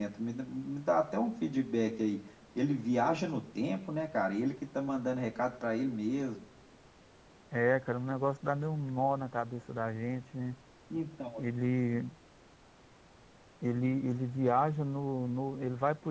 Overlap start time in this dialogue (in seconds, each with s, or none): none